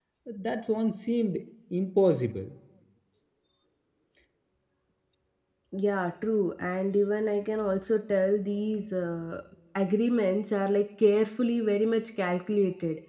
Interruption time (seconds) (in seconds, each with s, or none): none